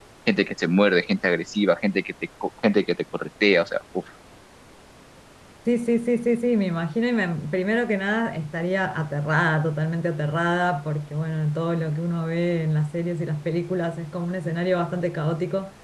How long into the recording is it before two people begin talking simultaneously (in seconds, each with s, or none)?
none